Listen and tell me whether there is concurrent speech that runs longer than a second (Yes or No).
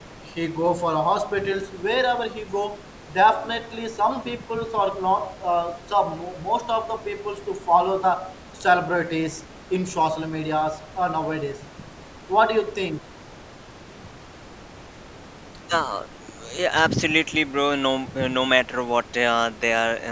No